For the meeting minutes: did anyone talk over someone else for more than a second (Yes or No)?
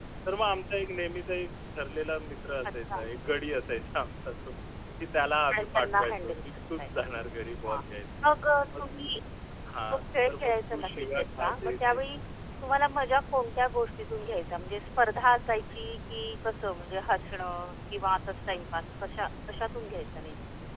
Yes